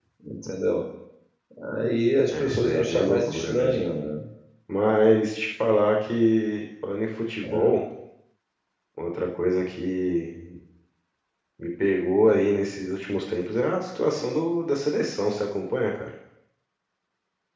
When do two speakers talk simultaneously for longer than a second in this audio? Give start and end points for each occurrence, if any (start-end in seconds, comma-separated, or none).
2.4-3.8